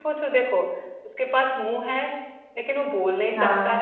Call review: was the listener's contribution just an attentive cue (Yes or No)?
Yes